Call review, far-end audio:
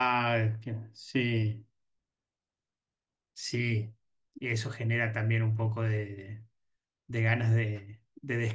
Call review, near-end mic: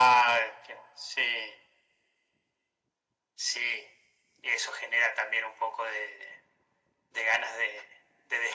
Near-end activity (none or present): none